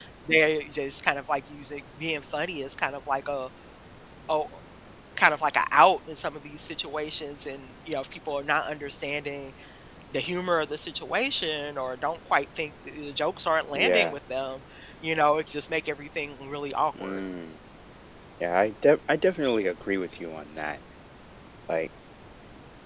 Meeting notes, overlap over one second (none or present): none